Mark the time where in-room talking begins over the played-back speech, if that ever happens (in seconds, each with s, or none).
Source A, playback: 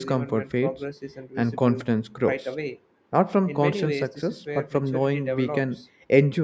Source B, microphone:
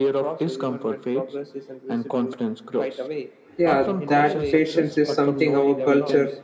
3.6 s